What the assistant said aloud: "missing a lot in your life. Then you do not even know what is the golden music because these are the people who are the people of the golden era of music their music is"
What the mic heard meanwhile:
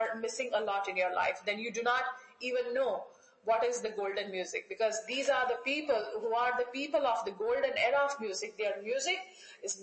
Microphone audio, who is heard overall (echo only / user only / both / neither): echo only